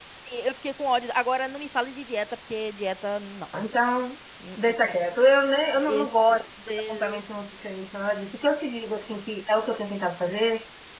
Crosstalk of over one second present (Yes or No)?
No